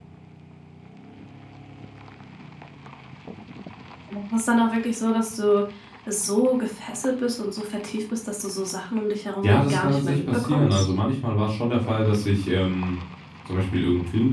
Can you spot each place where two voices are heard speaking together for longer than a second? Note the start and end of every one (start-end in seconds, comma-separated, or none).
9.4-10.9